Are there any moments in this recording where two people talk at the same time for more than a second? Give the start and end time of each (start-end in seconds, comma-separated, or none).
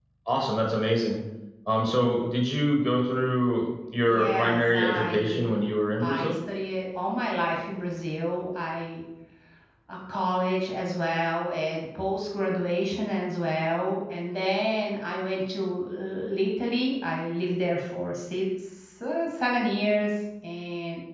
4.0-5.6